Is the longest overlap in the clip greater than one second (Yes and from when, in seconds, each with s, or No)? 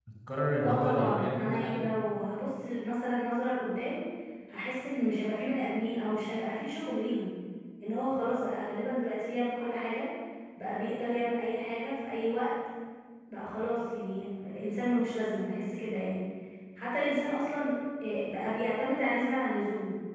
Yes, from 0.6 s